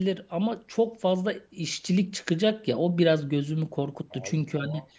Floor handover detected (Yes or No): No